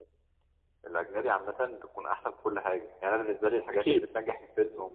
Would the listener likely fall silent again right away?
Yes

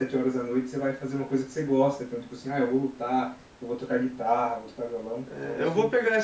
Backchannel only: No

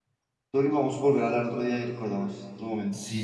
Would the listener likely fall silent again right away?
No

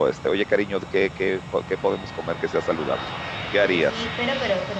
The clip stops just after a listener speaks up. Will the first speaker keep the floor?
No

